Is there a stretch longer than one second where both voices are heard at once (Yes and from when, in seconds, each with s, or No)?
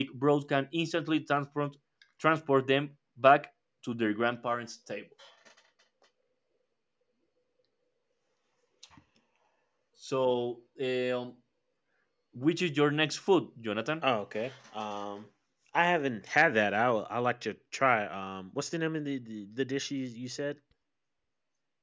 No